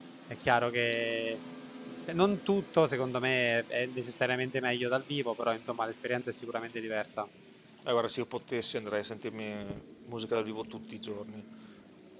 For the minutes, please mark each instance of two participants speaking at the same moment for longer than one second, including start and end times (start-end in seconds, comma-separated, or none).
none